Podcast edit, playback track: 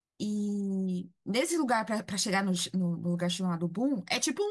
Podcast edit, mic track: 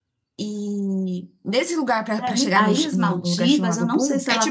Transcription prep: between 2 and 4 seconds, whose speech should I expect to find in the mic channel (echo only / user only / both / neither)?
both